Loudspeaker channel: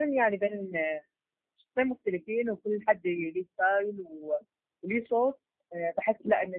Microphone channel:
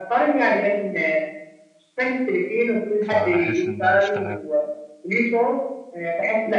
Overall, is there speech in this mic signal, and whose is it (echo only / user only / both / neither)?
both